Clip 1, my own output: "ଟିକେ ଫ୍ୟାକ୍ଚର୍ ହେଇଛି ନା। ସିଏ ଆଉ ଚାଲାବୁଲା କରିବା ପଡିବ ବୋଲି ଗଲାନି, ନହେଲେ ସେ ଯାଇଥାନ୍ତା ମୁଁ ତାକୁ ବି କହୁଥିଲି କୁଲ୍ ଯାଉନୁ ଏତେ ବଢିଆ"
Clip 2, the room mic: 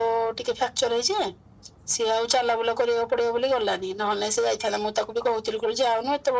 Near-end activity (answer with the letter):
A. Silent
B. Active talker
A